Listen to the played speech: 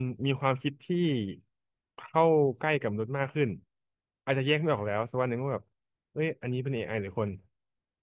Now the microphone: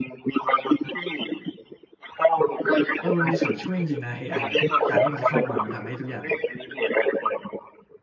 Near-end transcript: เออมันมีส่วนช่วยจริงๆนะ AI อไออะการที่มันเข้ามามันทำให้ทุกอย่าง

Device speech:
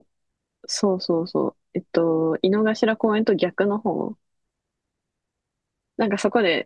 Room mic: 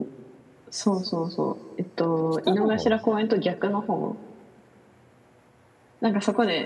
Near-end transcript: 北の方

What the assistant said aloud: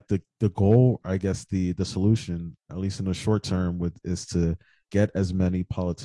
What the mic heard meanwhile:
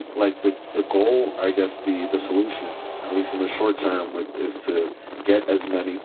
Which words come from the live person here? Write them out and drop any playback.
none

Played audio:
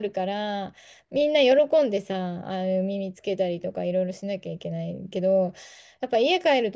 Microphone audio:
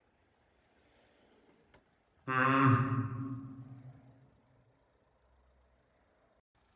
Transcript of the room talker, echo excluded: うん。

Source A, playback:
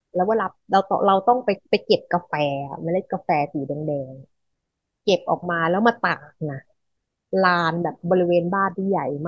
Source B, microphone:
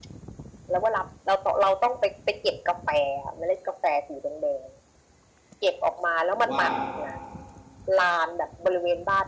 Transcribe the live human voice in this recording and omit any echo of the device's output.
ผมว่า

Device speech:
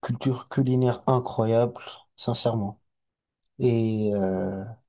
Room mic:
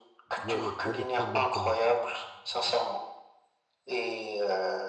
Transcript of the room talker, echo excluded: il y a, il y a il y a des problèmes quand même.

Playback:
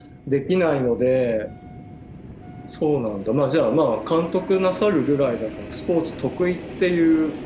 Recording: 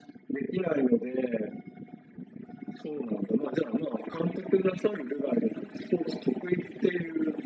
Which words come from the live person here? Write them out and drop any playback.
none

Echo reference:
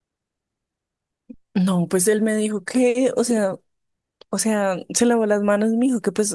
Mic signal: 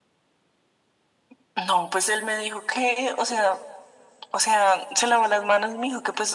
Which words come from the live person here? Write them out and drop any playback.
none

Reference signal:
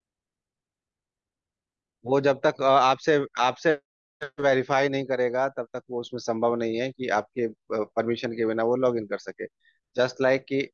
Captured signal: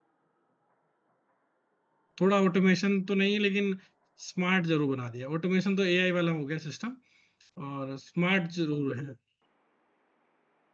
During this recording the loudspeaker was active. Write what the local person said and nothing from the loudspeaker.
थोड़ा ऑटोमेशन तो नहीं लेकिन स्मार्ट जरूर बना दिया ऑटोमेशन तो एआई वाला हो गया सिस्टम और स्मार्ट जरूर है हम्म,

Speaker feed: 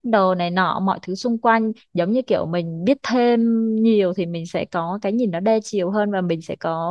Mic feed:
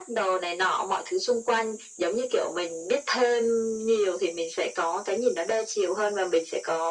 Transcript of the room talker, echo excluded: none

